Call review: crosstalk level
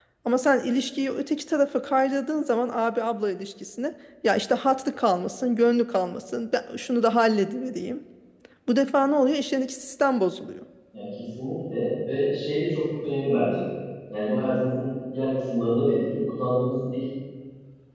none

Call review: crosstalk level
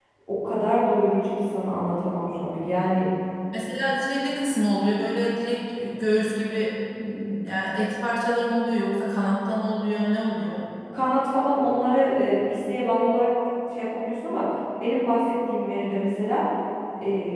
none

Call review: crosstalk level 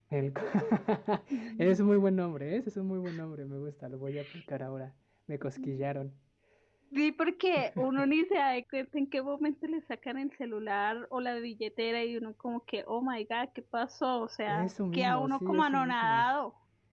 present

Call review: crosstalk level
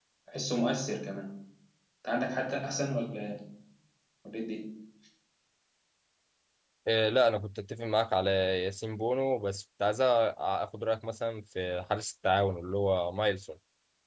none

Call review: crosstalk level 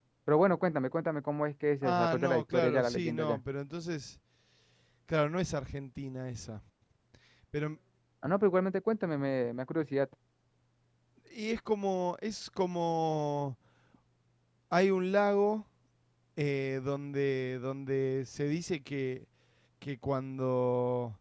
present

